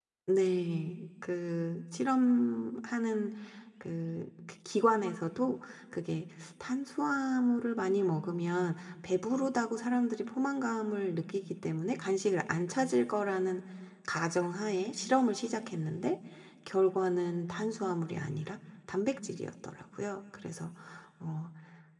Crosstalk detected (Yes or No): No